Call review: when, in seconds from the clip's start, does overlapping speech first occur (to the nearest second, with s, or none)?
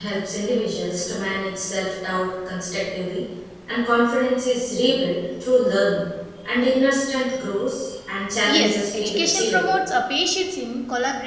8 s